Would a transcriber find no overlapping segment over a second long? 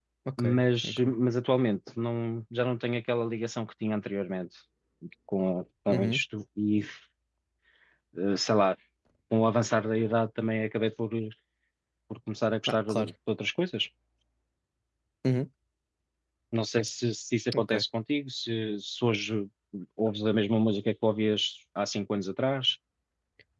Yes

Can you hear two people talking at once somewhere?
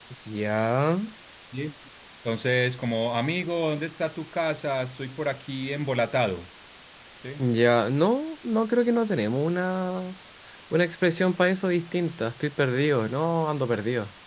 No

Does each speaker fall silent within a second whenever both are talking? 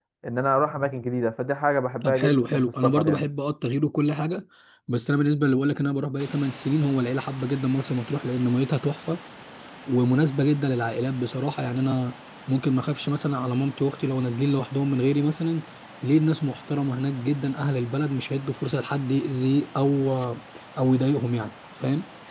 No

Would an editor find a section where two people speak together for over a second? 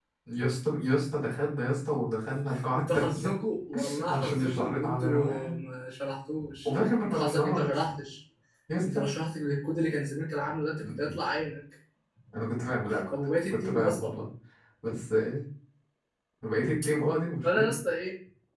Yes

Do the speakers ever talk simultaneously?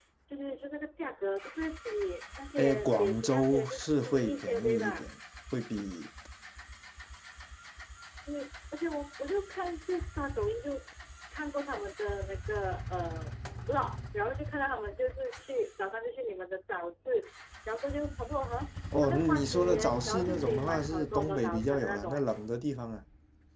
Yes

